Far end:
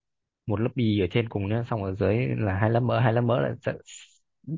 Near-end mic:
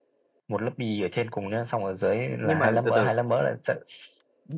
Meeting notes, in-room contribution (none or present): present